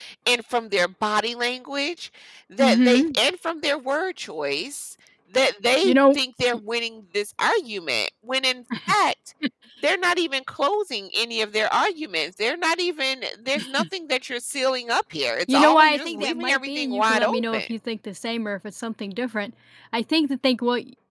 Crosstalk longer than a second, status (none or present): present